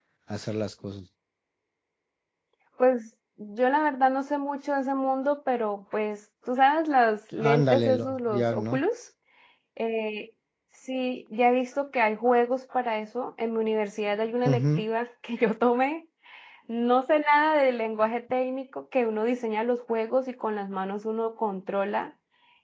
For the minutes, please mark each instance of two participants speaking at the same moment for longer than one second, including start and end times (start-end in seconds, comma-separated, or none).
7.3-8.8